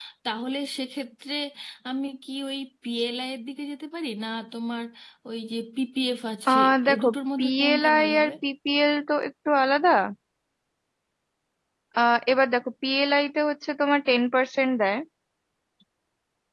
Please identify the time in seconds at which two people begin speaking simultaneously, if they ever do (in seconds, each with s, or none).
6.5 s